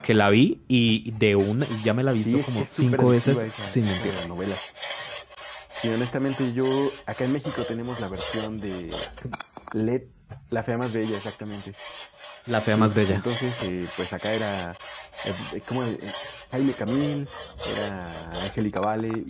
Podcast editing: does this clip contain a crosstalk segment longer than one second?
Yes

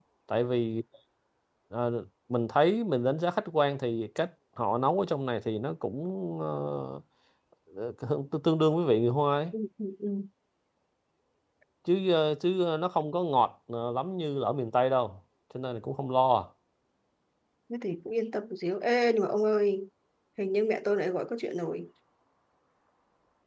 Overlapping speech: No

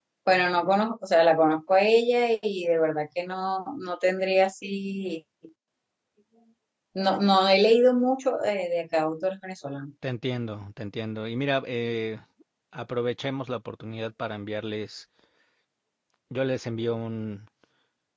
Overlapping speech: No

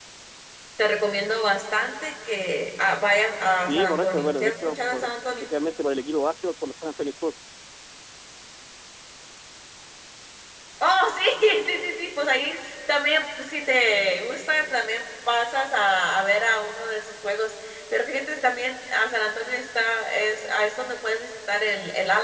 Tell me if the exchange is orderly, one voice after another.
No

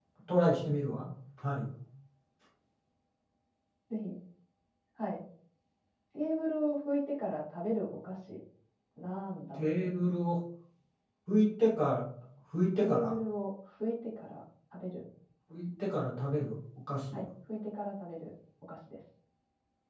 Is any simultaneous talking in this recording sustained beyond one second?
No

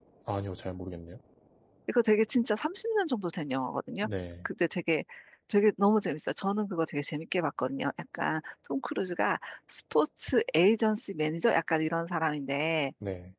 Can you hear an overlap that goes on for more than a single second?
No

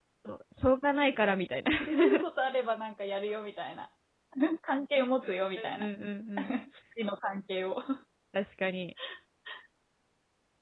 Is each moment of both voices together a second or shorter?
Yes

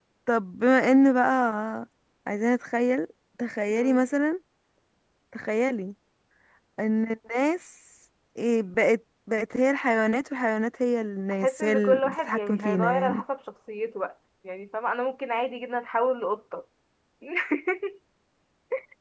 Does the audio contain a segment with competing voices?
Yes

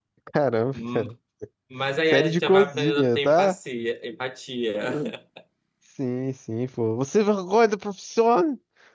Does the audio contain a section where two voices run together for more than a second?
Yes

